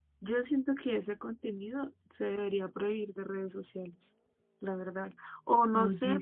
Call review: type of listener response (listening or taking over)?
listening